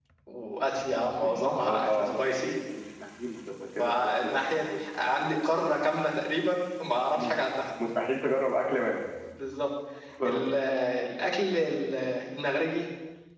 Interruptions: present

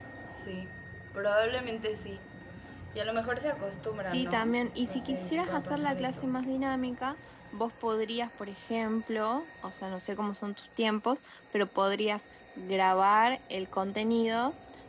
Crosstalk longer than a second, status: present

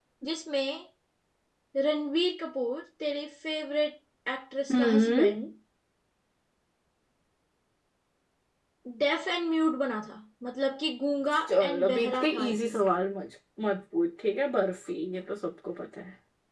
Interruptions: present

